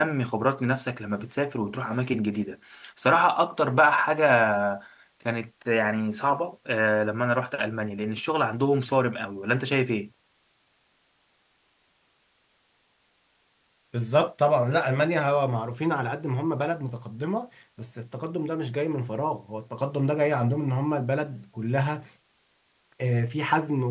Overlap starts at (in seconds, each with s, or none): none